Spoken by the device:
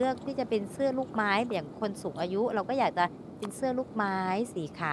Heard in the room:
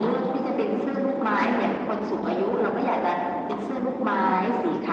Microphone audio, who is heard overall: echo only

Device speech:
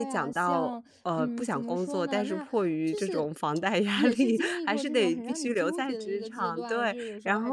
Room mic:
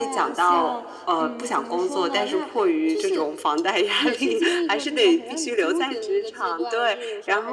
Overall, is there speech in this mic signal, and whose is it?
echo only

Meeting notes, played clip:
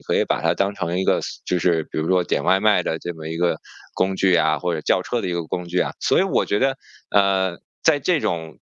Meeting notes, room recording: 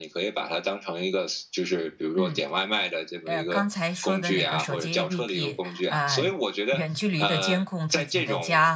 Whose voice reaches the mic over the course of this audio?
both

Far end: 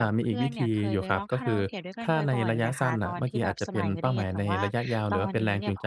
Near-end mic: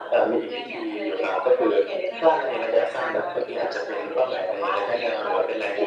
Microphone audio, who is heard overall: echo only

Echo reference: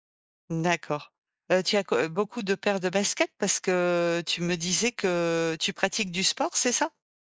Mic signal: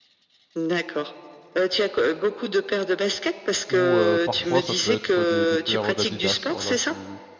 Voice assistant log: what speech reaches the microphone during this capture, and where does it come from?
both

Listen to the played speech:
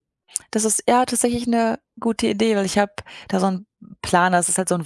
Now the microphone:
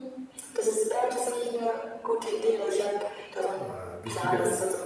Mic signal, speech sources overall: both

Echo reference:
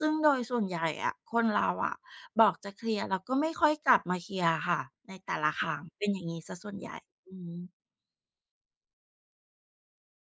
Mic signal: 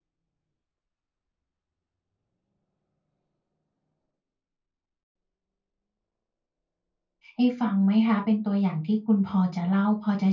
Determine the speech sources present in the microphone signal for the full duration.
user only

